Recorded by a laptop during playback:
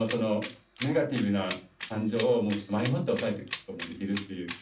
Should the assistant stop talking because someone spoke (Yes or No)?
No